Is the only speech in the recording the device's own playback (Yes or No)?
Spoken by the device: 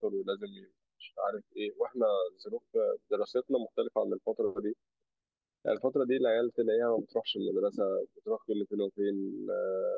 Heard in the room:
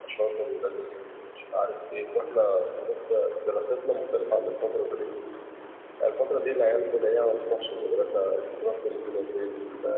Yes